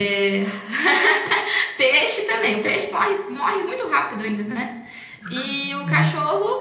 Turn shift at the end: No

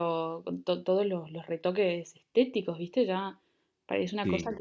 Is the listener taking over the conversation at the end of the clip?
No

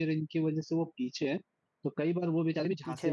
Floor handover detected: No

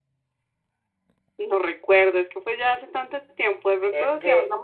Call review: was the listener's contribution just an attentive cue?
No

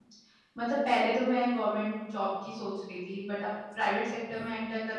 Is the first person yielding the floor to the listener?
No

